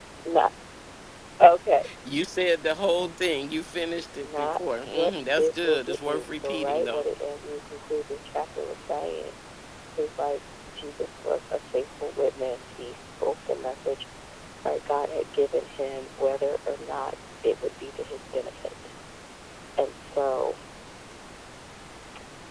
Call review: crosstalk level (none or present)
present